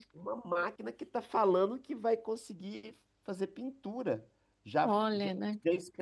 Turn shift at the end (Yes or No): No